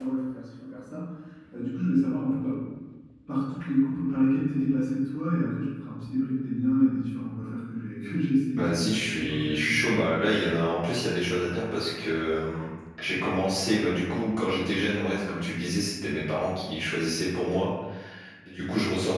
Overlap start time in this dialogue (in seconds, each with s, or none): 8.6 s